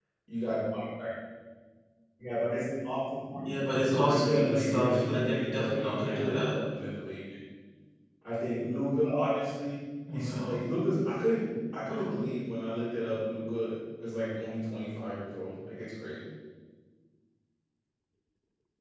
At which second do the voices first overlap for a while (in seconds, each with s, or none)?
3.3 s